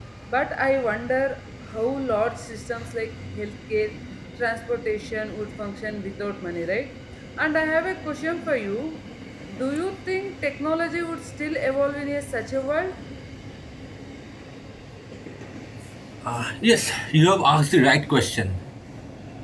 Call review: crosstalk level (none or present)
none